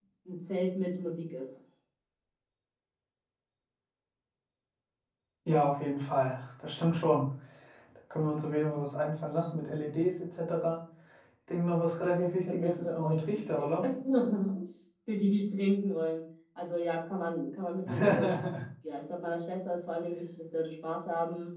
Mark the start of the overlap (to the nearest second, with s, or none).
12 s